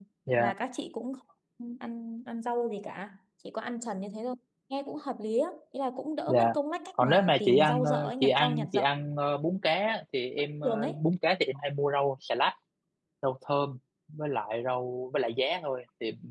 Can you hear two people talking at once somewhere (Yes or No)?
Yes